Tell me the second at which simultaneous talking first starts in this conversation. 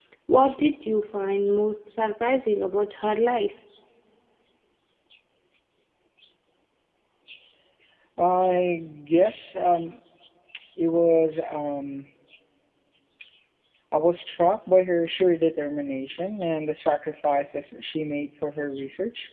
none

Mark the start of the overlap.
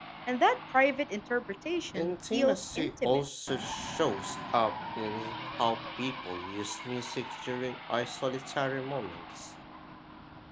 1.9 s

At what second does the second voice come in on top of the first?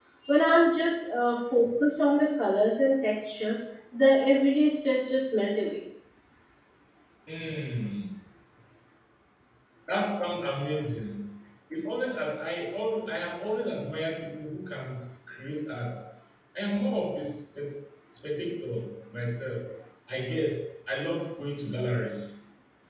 none

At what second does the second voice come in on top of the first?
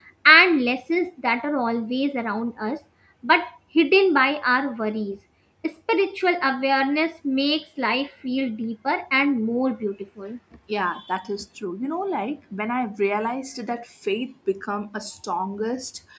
none

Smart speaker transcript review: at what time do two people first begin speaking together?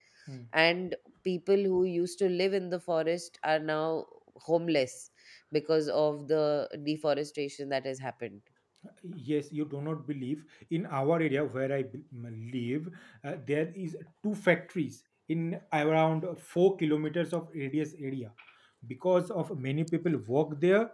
none

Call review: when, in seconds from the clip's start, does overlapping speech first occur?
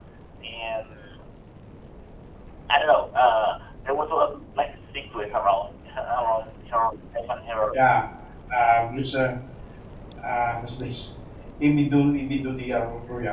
none

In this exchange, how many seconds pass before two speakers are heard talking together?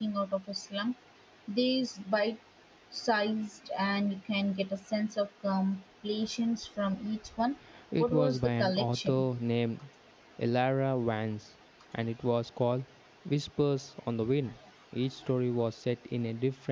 8.0 s

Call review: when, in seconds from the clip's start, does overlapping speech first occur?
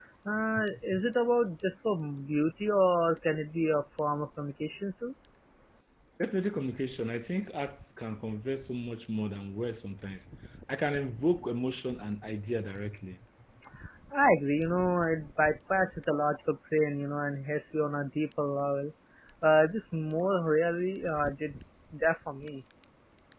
none

